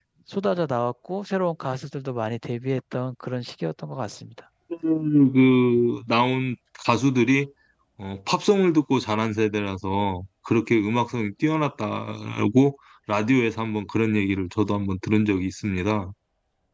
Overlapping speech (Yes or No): No